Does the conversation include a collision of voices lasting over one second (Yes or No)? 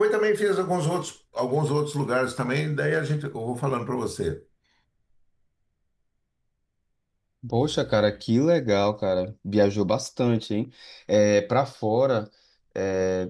No